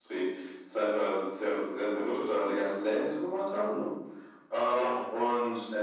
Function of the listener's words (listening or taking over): listening